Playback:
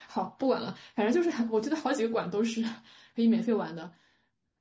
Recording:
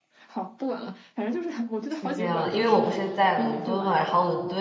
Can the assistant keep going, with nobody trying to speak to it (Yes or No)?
No